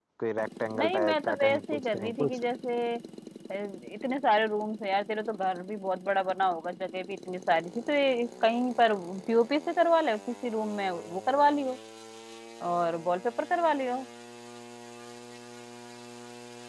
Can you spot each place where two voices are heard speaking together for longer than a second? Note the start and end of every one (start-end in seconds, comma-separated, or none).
0.8-2.4